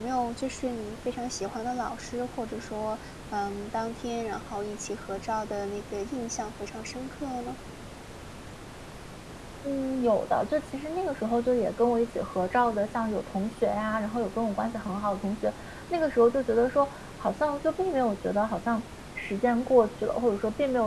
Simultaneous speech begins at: none

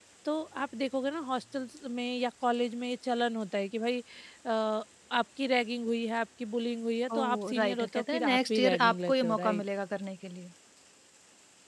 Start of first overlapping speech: 7.1 s

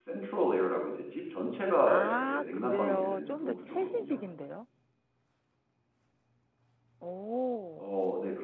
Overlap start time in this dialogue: 1.9 s

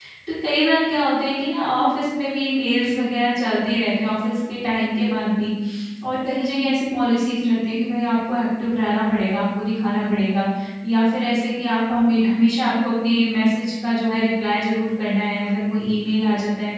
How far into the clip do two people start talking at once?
none

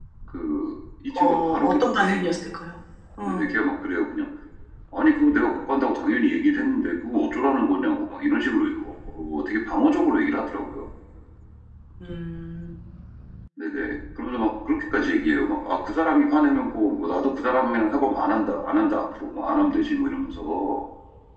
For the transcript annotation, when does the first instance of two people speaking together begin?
1.2 s

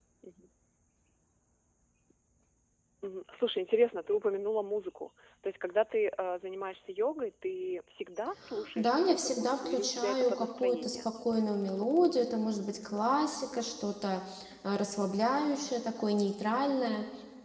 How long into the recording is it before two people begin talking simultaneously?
8.5 s

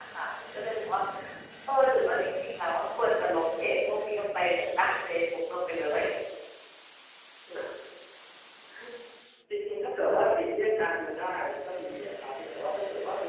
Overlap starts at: none

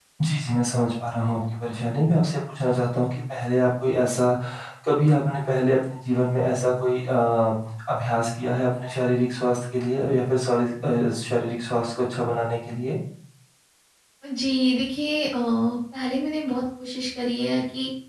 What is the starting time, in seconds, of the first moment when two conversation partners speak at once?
none

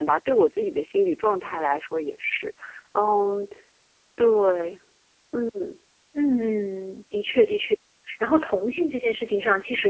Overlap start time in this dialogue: none

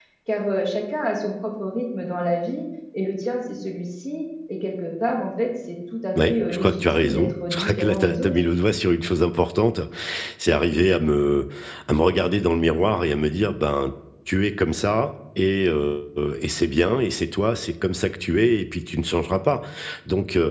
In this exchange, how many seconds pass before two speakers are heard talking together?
6.2 s

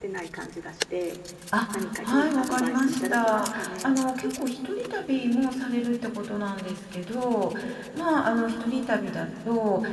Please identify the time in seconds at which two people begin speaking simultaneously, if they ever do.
1.7 s

